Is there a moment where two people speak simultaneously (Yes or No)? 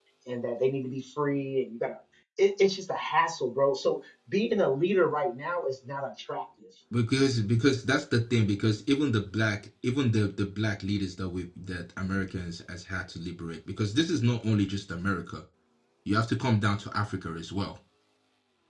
No